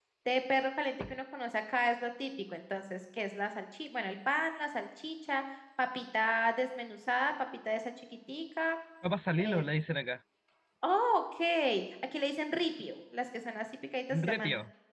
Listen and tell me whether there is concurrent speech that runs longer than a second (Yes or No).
No